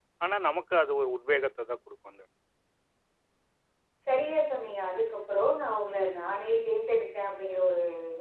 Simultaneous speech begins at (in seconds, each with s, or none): none